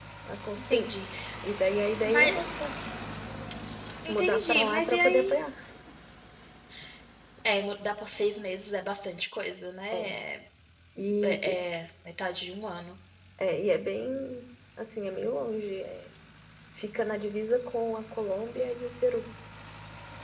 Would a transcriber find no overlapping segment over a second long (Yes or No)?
No